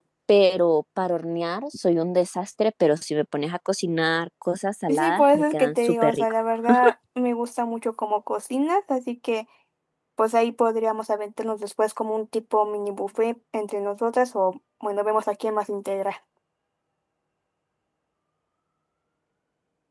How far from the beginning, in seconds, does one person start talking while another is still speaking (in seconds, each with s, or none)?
4.9 s